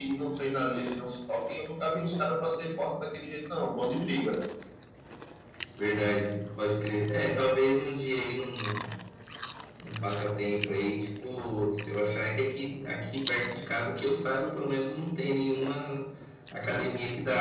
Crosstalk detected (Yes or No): No